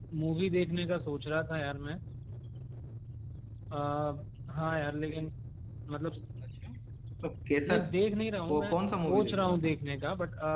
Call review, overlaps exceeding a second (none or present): present